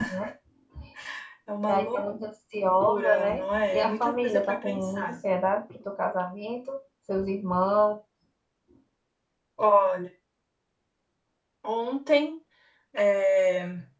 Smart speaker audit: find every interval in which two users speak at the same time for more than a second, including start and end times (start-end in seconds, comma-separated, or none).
2.8-5.2